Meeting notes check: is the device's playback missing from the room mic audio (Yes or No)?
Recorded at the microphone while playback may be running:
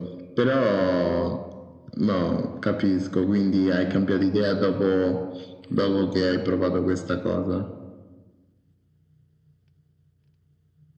No